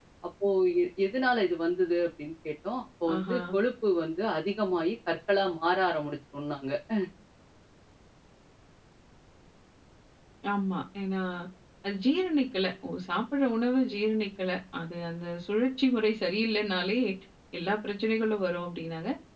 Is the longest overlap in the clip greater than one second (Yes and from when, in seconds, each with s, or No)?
No